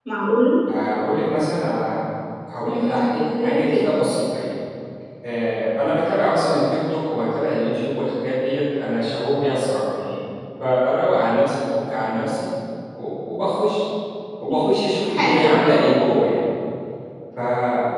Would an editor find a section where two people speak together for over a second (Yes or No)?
Yes